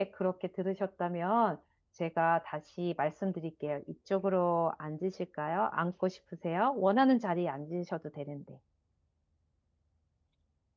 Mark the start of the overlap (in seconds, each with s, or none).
none